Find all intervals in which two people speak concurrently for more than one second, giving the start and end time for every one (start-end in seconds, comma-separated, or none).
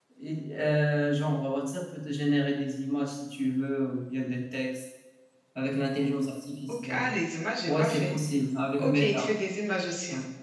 none